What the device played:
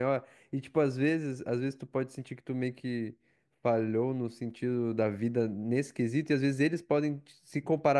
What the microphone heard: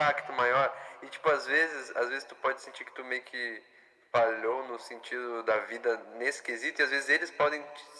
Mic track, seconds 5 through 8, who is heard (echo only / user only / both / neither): echo only